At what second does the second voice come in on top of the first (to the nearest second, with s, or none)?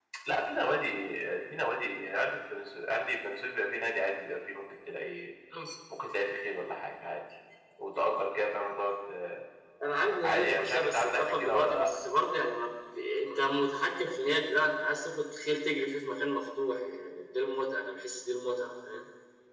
10 s